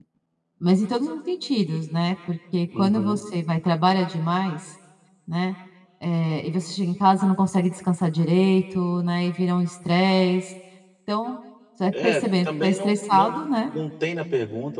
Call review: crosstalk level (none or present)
present